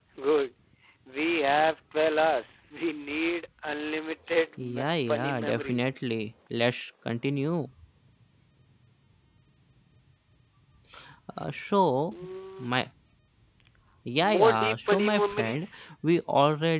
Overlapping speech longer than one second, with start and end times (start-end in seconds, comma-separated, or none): 4.6-6.0, 14.2-15.7